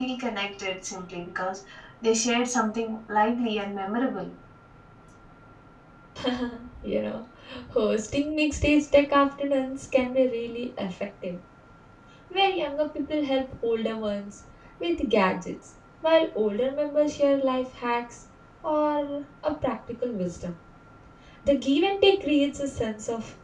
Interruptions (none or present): none